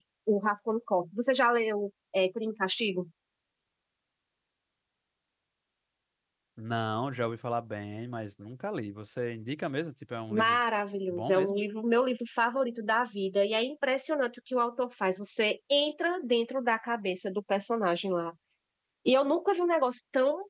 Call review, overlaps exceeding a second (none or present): none